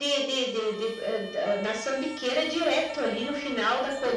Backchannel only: No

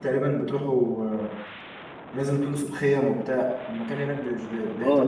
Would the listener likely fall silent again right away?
No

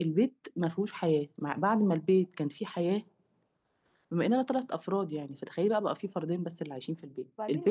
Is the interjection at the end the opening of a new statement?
Yes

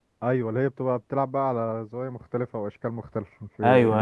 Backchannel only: No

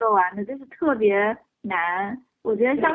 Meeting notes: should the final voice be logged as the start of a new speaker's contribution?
No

